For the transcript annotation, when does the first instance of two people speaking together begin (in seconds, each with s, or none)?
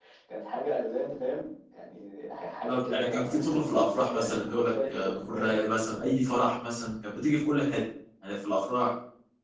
2.7 s